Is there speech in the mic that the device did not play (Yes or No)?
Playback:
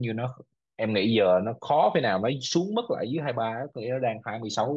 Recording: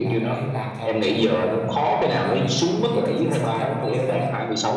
Yes